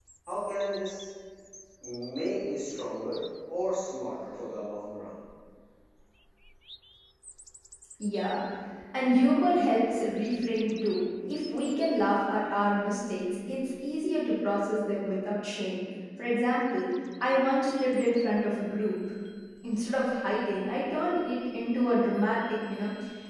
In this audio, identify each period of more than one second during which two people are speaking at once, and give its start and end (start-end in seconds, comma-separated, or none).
none